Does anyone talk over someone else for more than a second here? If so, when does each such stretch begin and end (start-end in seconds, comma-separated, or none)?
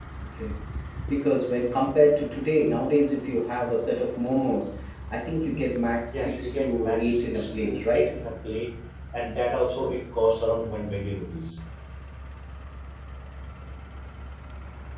6.1-8.1